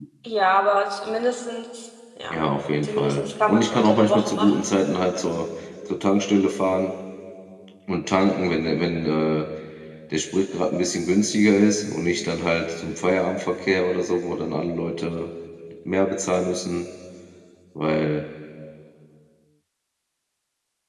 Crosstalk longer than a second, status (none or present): present